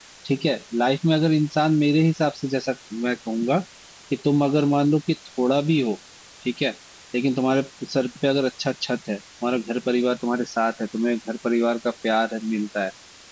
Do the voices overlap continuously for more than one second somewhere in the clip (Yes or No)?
No